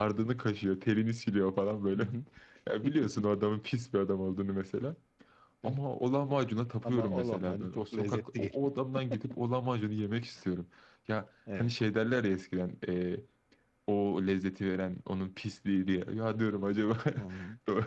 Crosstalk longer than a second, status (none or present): present